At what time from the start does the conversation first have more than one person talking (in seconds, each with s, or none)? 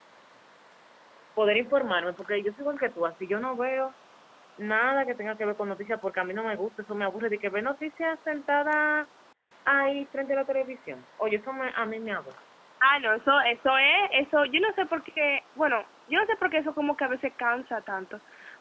none